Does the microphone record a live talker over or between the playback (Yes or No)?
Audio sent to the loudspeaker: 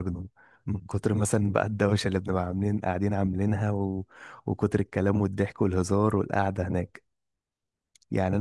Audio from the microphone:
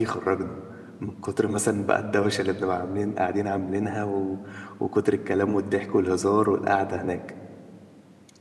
No